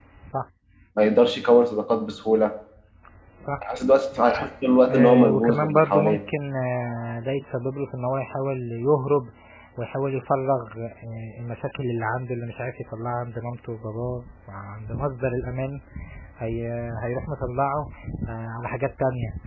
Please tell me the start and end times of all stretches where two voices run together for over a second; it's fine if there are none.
4.9-6.2

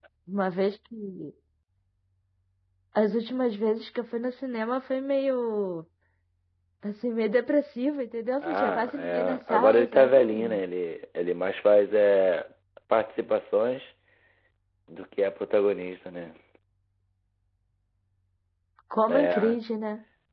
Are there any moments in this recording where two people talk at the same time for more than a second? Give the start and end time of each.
8.4-10.6

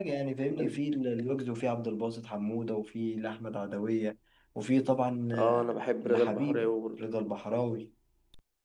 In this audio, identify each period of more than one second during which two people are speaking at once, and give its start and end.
5.4-7.0

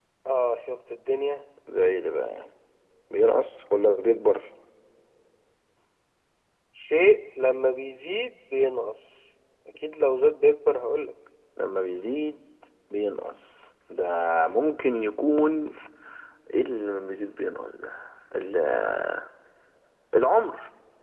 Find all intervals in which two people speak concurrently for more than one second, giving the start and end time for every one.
none

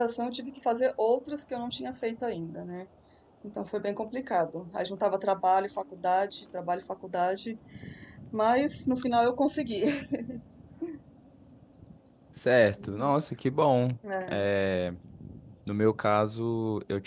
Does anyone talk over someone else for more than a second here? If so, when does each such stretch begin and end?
none

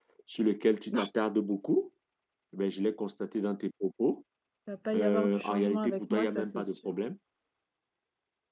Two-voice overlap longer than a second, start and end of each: 4.9-7.0

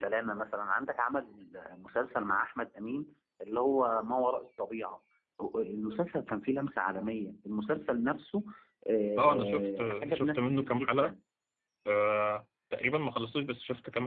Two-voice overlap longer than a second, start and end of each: 9.2-11.1

